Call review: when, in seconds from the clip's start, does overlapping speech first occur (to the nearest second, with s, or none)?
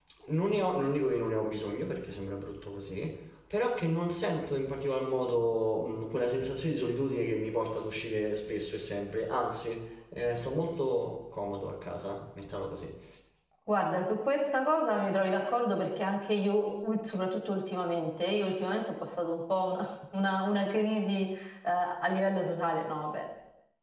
none